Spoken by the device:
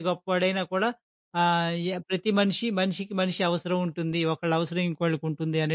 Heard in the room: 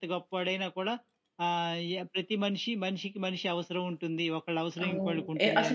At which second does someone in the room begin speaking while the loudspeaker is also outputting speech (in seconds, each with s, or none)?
4.8 s